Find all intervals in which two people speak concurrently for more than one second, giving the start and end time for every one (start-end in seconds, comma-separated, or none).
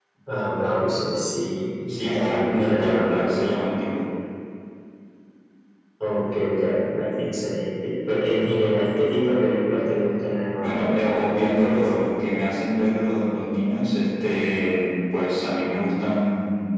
1.9-3.7